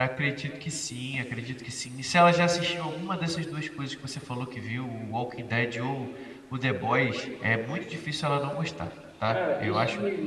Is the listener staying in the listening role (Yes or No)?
No